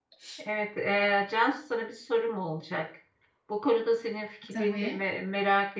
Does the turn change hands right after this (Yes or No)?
No